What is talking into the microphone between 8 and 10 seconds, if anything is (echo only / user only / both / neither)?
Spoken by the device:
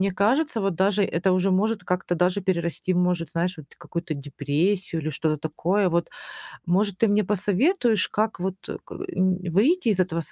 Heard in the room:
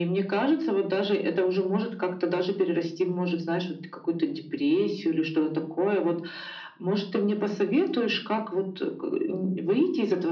echo only